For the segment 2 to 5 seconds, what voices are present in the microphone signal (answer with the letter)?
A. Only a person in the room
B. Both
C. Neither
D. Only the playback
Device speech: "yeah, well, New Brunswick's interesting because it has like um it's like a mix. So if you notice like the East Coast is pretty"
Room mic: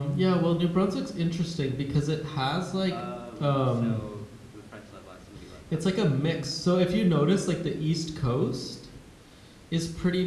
B